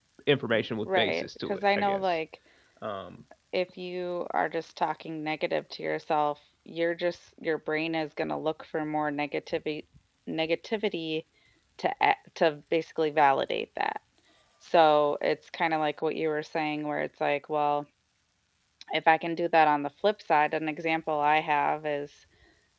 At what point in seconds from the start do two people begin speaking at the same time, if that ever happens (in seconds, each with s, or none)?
0.8 s